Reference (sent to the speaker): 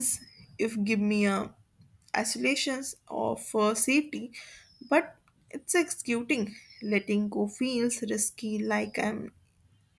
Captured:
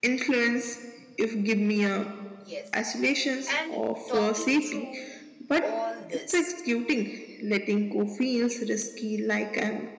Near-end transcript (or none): Yes. And talking through all this